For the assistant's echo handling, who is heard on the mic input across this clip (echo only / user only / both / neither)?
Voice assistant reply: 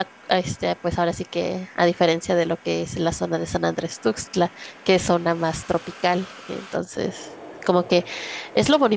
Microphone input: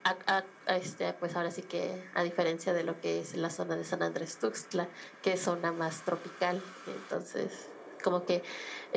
echo only